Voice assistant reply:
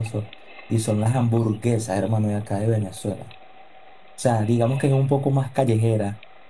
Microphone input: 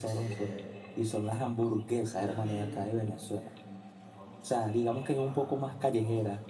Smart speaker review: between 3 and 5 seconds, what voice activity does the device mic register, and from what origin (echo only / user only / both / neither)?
both